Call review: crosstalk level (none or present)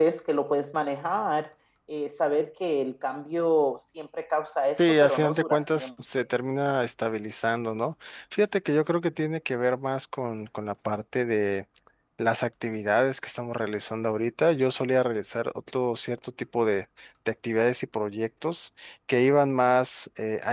present